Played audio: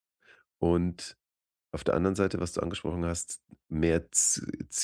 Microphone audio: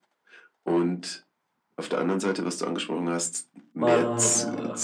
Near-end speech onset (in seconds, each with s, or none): 3.8 s